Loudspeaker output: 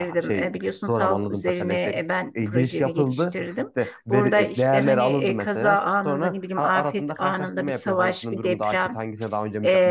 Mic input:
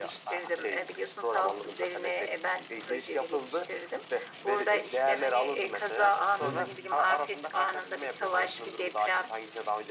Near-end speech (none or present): present